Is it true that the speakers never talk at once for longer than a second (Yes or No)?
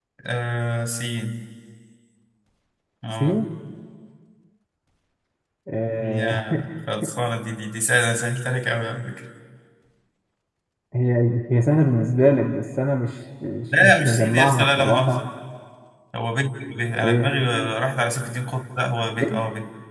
No